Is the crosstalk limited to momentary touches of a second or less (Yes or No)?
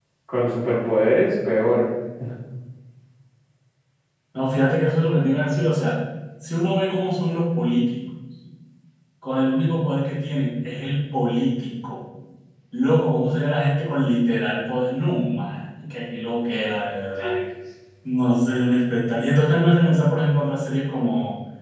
Yes